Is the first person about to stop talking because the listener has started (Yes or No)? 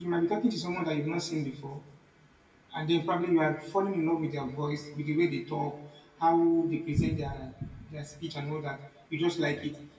No